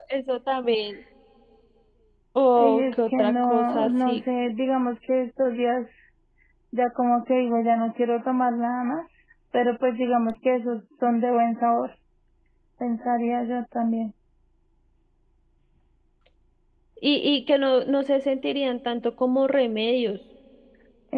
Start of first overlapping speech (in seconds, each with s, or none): 2.6 s